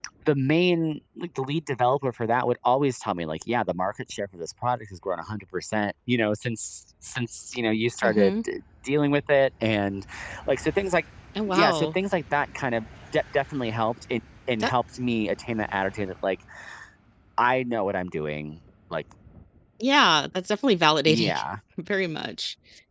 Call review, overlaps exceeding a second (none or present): none